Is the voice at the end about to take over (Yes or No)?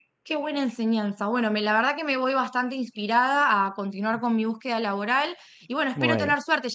No